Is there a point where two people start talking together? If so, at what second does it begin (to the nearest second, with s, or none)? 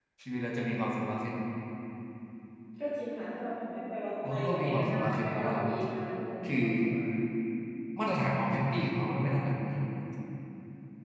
4 s